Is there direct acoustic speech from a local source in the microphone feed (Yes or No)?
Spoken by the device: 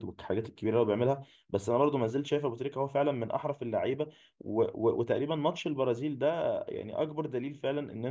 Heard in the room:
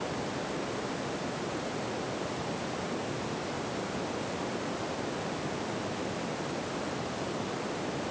No